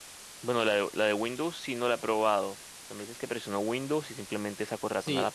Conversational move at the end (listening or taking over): taking over